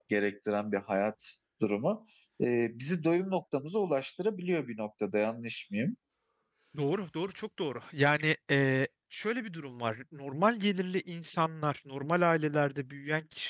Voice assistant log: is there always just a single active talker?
Yes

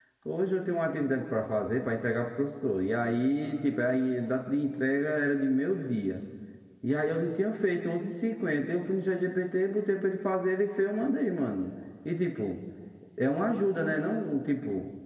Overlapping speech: No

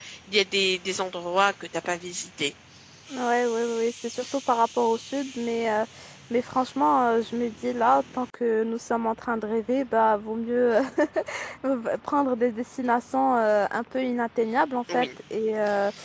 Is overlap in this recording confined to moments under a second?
Yes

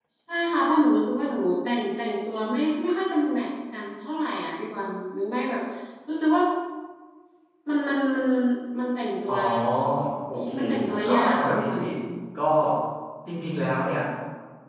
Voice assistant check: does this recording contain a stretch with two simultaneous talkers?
Yes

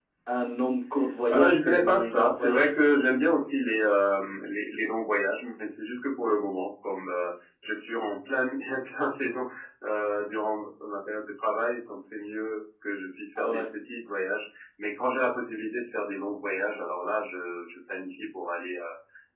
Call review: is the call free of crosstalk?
No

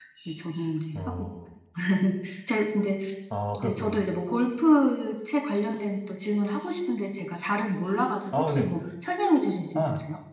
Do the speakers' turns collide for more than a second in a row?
No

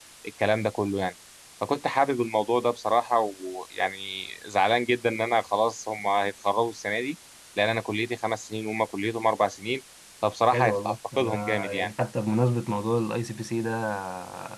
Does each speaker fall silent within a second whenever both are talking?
No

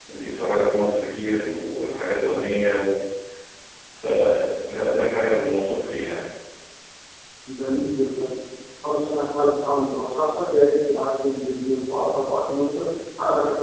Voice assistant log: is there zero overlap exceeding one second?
Yes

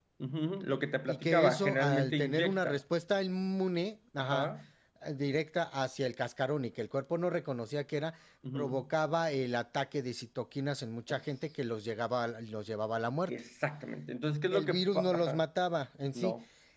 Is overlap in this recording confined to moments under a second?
No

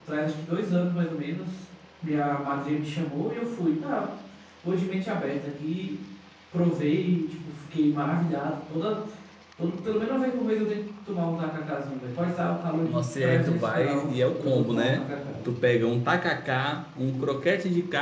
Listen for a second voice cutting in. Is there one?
Yes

